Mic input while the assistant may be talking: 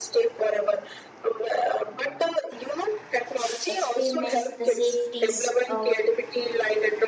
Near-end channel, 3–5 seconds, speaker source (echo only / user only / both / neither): both